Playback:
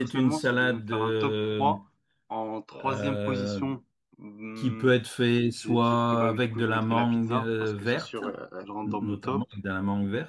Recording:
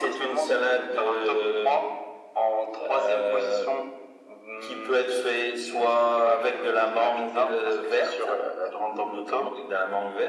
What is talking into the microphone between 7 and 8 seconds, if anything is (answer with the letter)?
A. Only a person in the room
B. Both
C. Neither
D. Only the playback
D